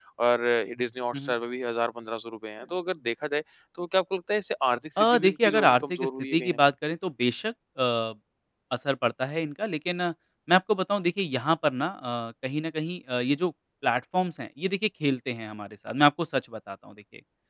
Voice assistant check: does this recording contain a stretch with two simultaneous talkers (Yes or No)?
Yes